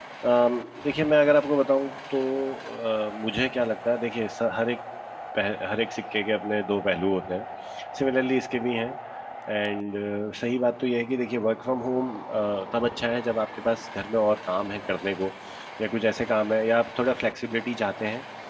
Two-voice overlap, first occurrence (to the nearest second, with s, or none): none